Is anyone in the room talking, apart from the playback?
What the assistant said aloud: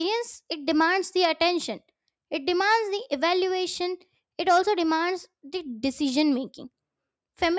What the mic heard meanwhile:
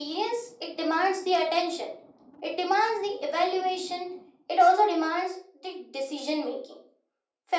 No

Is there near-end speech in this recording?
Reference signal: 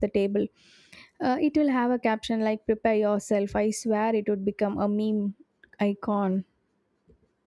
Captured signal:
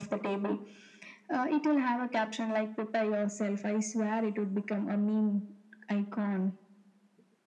No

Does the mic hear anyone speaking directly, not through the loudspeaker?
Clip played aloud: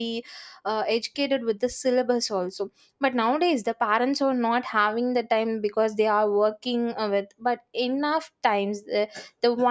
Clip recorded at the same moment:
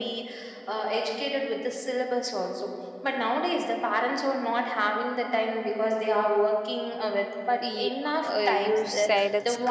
Yes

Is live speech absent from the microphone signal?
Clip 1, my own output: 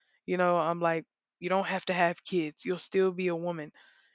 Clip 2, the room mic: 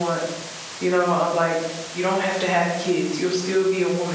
Yes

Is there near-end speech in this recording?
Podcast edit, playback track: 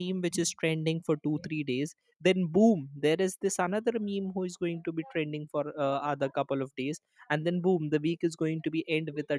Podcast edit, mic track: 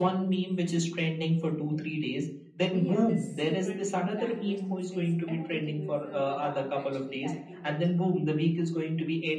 Yes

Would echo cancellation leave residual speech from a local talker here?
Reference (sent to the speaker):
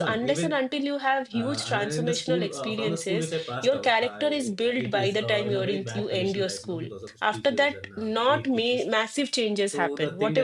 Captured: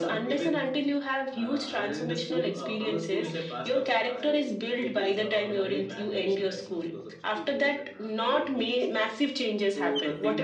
No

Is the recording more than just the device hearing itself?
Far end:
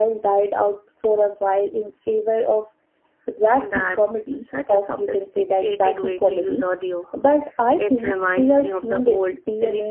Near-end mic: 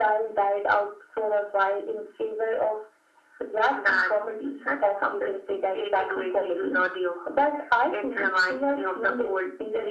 No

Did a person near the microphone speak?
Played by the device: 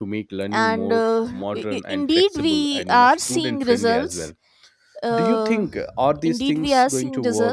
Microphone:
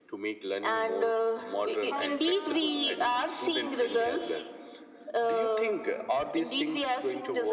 Yes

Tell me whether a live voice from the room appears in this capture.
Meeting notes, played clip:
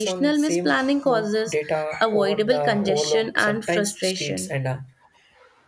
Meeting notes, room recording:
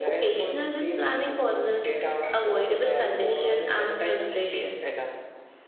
Yes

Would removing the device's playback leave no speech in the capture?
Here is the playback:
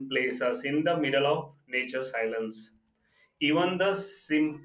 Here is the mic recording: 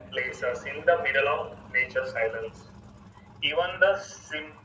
Yes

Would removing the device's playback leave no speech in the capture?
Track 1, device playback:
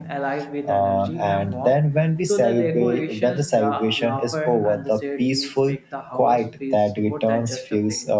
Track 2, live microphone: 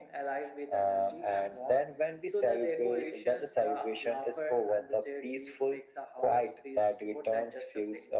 Yes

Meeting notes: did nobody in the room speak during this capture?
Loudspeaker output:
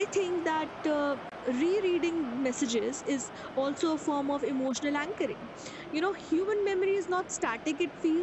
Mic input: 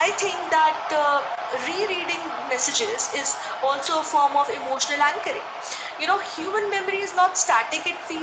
Yes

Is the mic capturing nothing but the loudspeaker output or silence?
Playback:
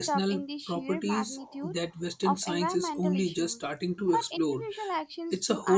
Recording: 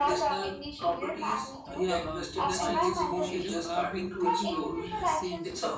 No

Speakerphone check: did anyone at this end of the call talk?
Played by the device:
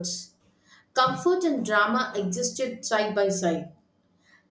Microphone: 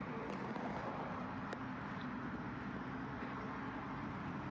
No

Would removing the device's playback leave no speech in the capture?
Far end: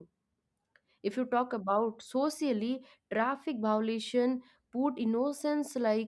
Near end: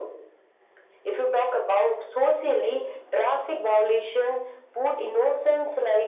Yes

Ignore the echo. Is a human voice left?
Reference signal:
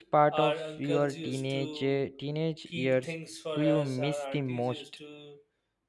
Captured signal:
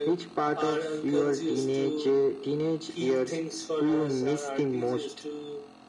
No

